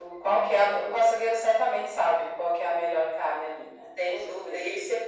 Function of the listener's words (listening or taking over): taking over